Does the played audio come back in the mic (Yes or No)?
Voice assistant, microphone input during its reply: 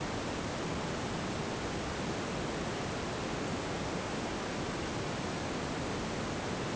No